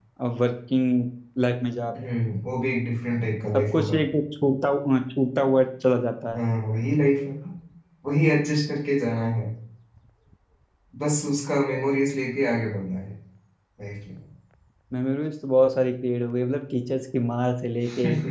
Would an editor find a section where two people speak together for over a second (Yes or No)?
No